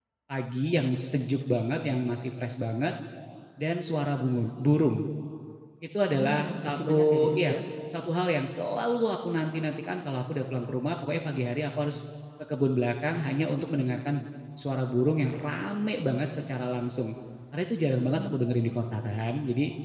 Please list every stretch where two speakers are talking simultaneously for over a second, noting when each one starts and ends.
6.2-7.6

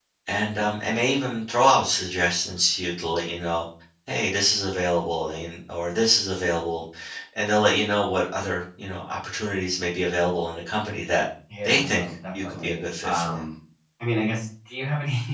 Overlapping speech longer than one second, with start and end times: 11.6-13.4

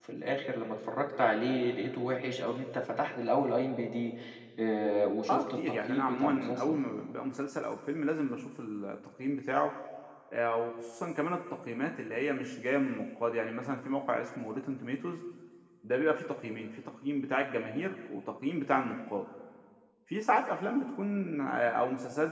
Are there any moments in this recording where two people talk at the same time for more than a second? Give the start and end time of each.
5.3-6.8

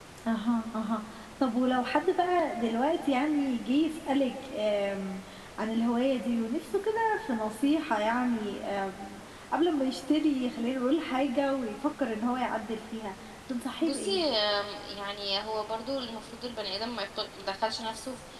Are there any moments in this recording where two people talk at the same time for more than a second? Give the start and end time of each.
none

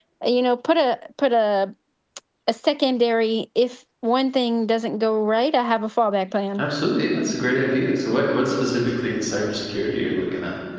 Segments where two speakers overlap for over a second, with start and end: none

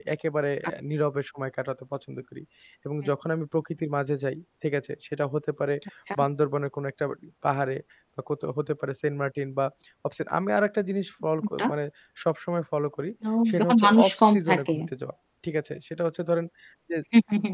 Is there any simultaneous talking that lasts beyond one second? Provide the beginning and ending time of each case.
13.5-14.8

